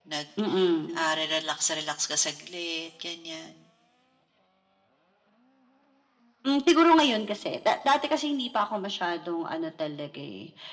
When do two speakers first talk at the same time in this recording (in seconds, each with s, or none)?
none